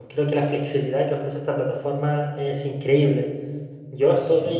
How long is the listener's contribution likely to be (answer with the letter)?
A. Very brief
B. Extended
A